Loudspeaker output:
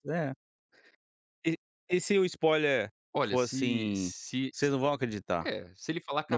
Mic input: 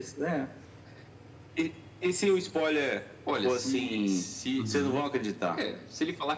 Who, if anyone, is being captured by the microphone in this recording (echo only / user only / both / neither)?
both